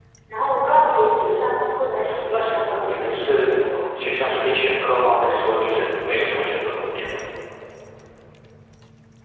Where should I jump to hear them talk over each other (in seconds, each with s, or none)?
2.3 s